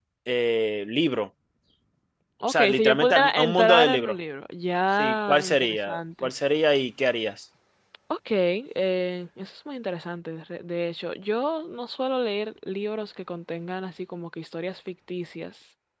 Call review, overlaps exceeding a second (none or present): present